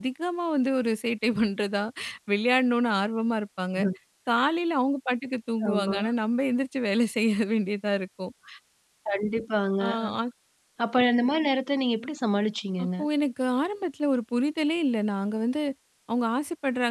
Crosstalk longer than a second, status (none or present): none